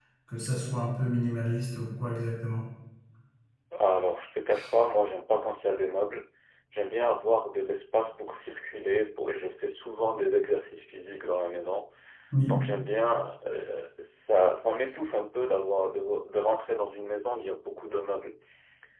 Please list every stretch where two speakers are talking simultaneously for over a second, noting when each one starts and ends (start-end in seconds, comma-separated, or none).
none